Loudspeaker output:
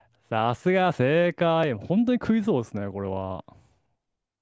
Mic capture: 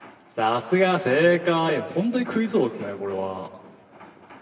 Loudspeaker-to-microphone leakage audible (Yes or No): Yes